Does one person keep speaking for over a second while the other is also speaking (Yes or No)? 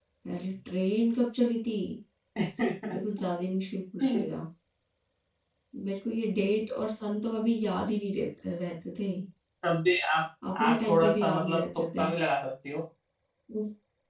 Yes